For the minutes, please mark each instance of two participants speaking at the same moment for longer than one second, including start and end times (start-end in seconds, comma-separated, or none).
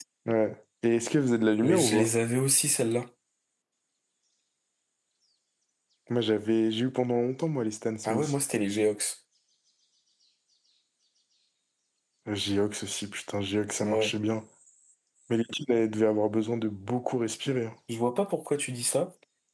none